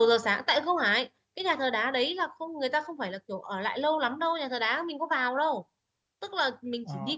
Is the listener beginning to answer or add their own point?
Yes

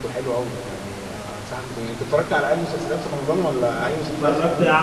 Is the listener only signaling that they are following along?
No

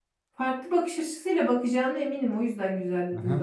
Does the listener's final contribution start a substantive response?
Yes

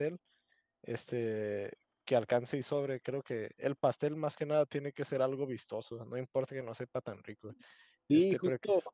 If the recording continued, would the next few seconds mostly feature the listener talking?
Yes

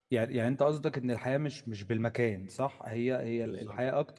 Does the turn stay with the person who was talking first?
Yes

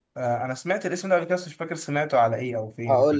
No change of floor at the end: No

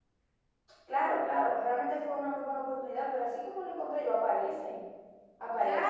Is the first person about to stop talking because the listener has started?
Yes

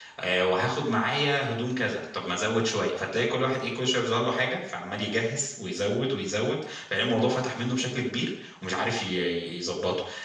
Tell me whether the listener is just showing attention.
Yes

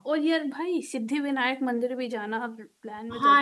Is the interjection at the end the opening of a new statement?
Yes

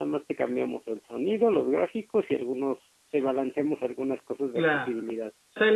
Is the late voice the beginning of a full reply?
Yes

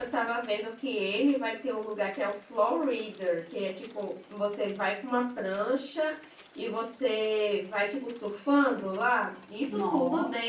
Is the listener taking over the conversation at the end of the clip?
No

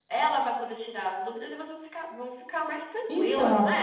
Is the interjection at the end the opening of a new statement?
Yes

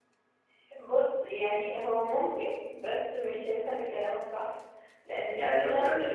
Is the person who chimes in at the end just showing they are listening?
No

